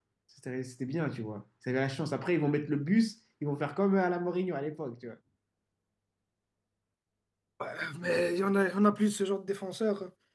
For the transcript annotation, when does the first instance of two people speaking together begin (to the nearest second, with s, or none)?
none